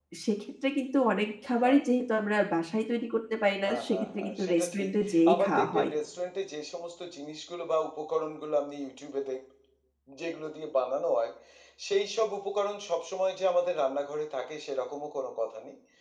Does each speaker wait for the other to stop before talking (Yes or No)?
No